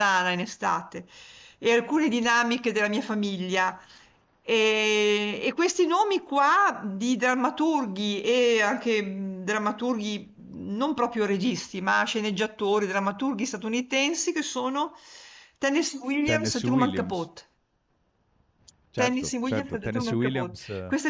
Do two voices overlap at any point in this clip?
Yes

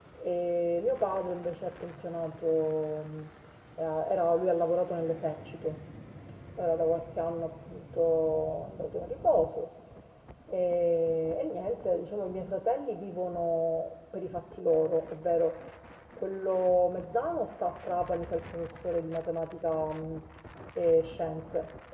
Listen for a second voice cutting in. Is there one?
No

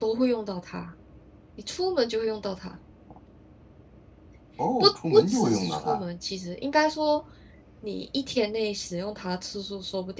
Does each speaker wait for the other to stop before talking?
No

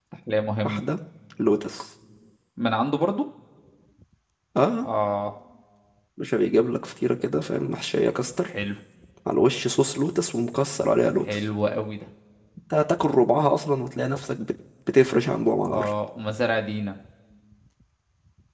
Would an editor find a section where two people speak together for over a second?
No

